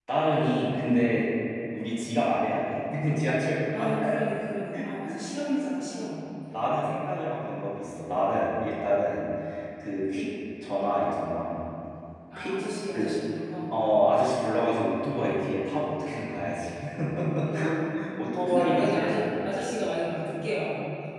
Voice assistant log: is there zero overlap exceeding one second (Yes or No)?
No